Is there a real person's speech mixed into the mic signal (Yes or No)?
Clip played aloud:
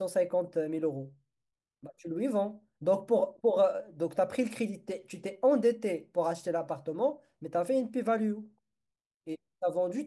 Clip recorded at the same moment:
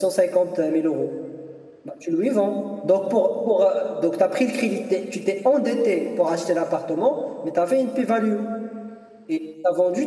No